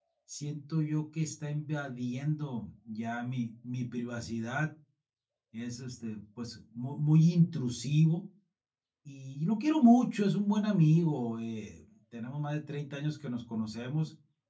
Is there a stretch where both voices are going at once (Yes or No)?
No